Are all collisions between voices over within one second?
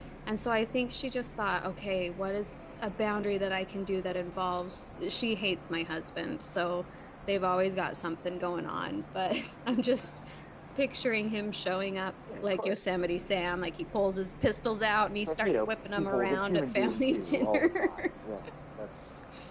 No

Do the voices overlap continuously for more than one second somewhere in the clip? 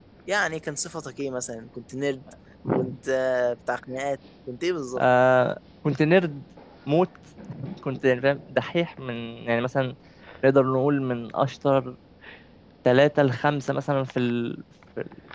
No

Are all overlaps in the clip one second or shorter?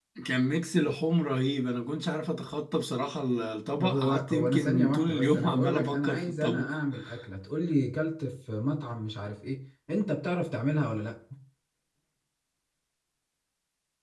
No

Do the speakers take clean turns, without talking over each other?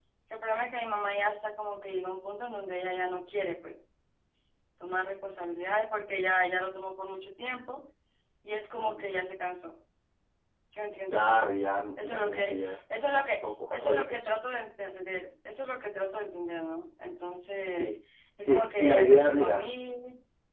No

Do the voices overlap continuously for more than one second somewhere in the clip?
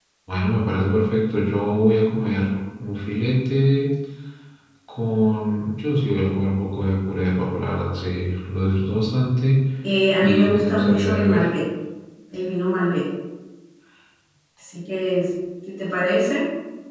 Yes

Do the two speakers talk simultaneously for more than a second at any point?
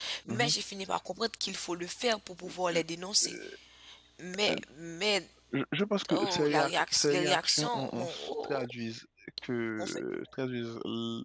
Yes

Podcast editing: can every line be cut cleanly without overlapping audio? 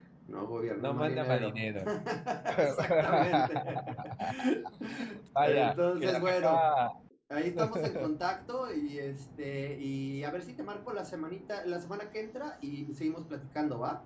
No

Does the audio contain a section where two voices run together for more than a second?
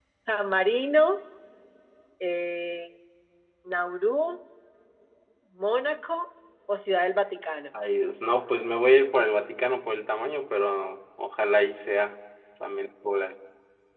No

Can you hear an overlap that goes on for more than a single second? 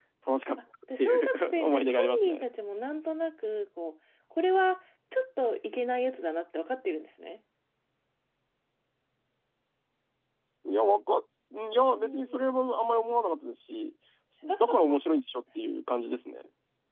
Yes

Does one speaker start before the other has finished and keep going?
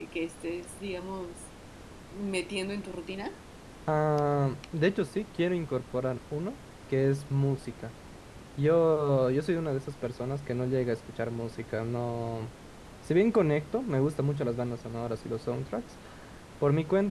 No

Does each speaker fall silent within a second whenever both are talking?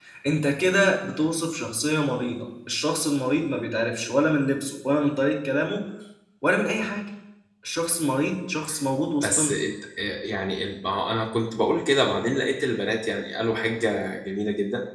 Yes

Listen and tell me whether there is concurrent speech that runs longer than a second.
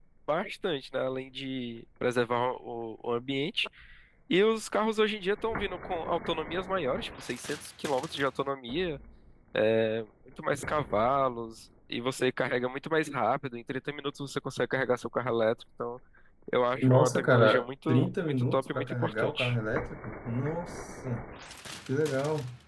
Yes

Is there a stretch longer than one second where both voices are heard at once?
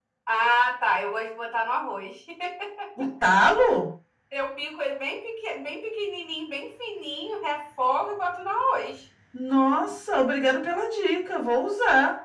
No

